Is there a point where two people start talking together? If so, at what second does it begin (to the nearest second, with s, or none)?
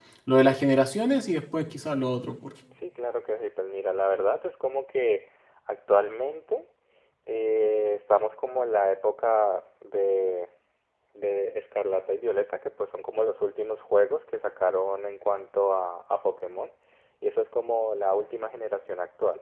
none